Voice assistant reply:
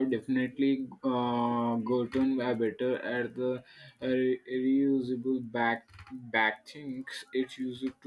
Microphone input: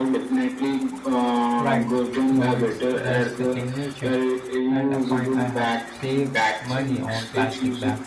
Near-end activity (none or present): present